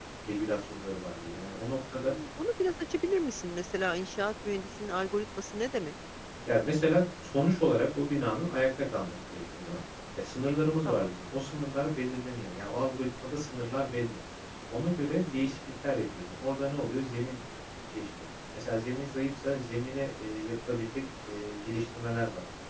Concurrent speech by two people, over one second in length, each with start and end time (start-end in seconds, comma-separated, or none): none